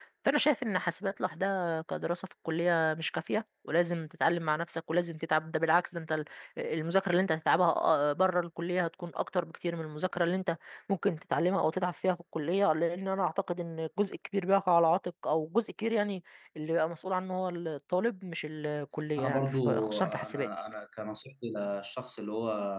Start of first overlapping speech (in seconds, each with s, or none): 19.2 s